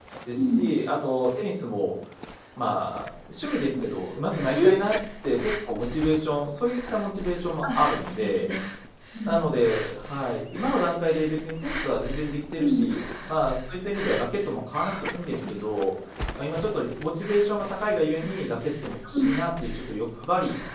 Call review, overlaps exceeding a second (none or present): none